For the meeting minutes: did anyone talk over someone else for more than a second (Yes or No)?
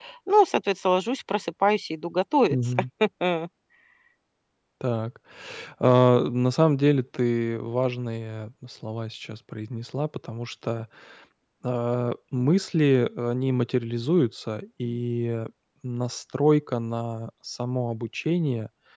No